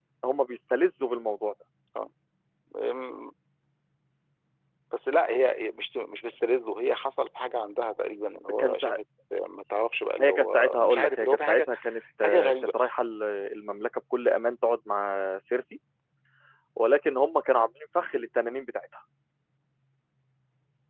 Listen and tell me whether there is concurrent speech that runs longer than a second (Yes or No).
Yes